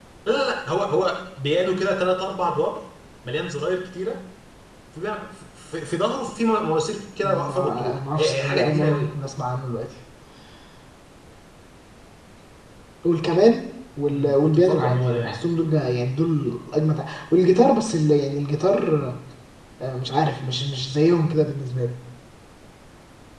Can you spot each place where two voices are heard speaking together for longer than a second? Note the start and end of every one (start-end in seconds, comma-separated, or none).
7.2-9.1, 14.1-15.4